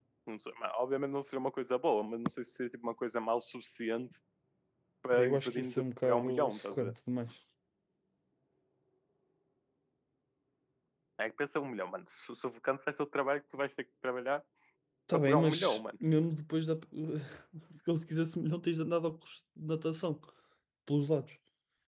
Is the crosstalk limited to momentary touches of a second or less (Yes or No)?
No